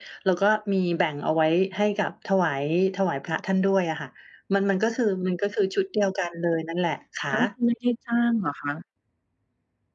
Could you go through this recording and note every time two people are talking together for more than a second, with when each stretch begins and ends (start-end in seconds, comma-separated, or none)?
none